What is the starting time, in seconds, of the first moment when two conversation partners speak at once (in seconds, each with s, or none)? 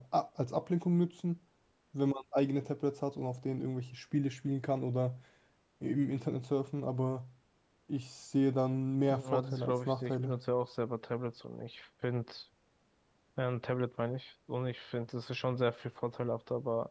9.1 s